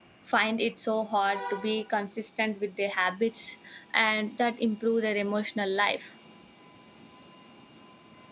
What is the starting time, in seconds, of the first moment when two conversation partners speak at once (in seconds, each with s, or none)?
none